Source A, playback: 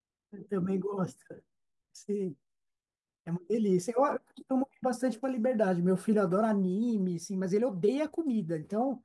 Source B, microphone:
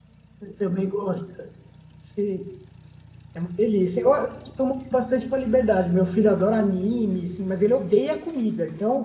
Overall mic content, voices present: echo only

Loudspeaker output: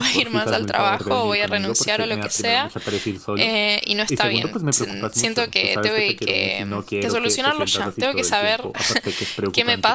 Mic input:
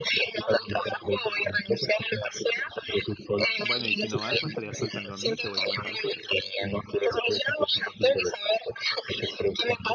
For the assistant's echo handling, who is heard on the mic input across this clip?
both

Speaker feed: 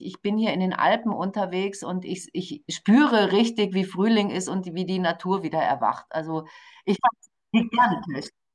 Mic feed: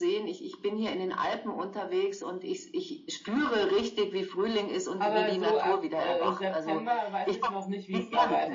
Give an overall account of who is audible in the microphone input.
both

